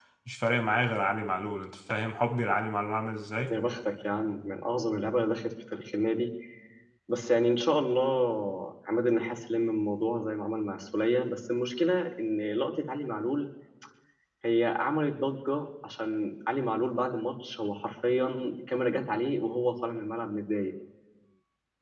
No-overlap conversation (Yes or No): Yes